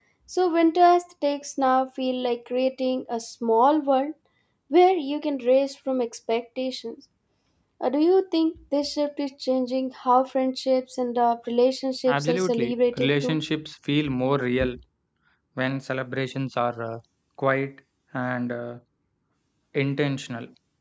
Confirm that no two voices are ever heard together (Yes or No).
No